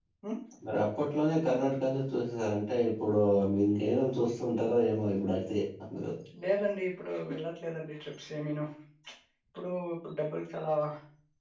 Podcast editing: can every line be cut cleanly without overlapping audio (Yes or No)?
Yes